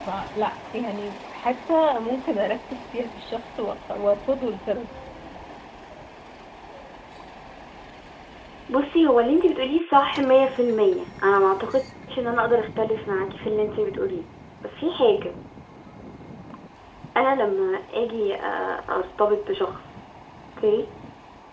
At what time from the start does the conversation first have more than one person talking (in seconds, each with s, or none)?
none